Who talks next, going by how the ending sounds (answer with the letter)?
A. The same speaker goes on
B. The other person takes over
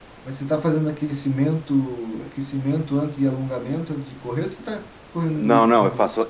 B